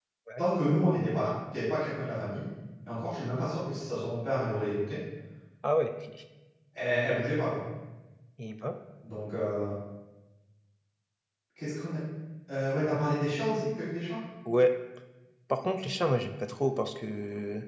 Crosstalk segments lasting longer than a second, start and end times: none

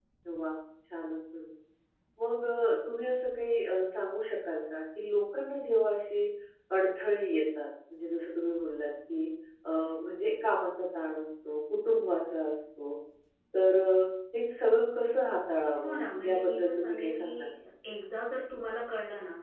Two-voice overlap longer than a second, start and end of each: 15.8-17.5

